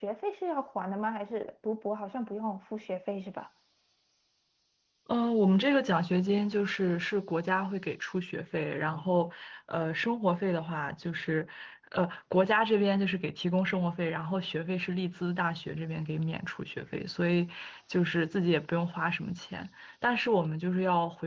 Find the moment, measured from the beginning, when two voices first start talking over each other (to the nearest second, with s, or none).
none